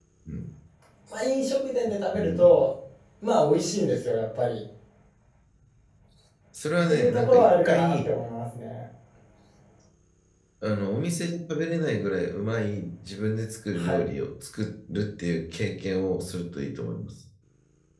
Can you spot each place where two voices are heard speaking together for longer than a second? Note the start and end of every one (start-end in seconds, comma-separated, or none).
6.9-8.1